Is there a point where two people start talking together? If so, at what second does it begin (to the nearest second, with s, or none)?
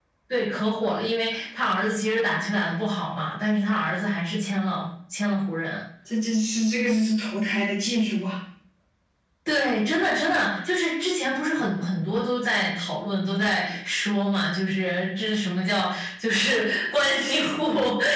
none